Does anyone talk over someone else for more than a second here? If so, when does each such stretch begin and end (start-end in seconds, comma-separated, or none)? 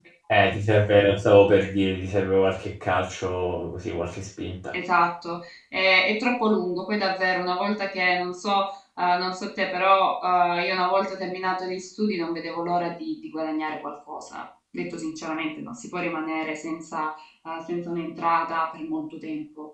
none